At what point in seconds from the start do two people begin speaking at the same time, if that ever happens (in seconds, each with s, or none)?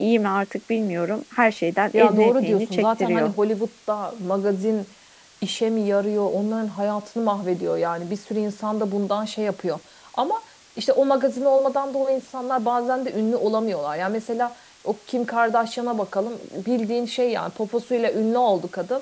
1.9 s